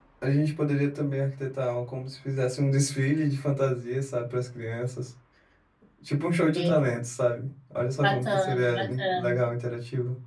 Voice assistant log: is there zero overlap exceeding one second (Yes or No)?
No